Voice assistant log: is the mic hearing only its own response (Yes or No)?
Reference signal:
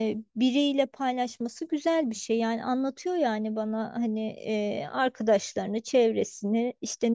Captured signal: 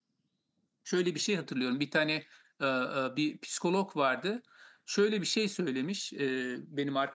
No